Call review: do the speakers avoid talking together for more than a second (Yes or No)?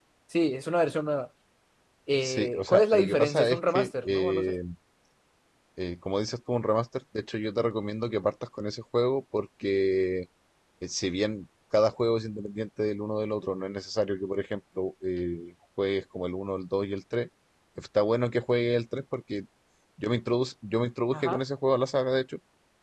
No